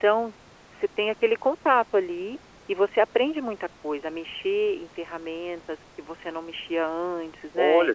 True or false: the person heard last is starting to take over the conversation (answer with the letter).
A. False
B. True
B